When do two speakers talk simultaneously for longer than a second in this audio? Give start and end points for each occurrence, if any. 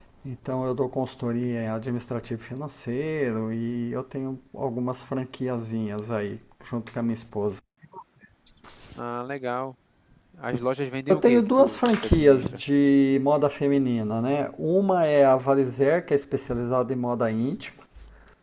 11.1-12.6

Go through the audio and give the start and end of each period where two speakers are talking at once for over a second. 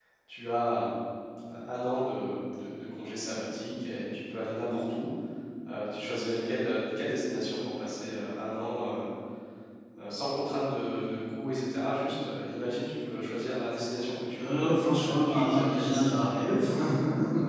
14.4-16.3

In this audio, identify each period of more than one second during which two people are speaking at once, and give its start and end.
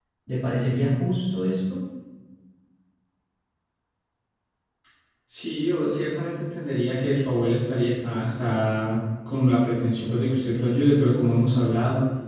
none

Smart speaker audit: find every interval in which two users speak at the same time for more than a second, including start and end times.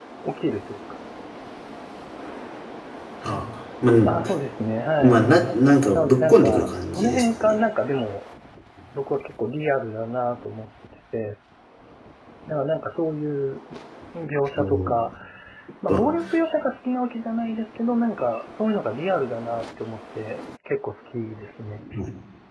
5.9-7.5

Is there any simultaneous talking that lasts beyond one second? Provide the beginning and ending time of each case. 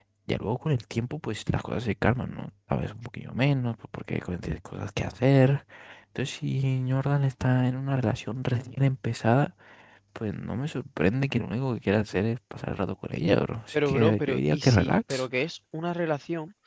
13.7-15.2

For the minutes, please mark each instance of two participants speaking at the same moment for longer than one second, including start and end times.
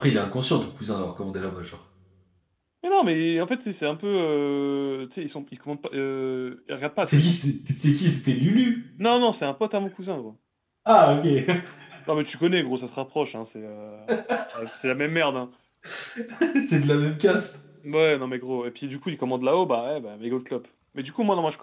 none

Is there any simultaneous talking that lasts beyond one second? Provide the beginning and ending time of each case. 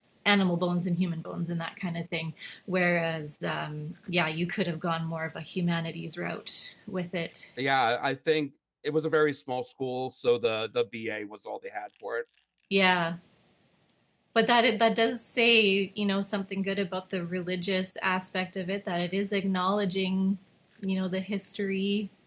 none

